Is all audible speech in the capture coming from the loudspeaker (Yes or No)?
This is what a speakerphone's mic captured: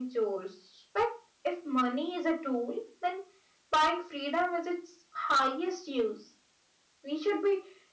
Yes